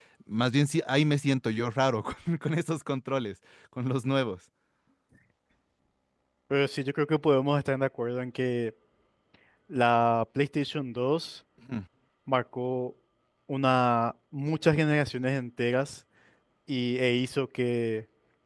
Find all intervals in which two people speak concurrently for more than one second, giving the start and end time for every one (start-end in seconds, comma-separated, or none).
none